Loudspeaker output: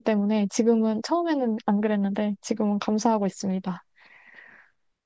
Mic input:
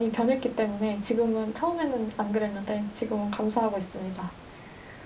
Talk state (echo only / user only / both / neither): echo only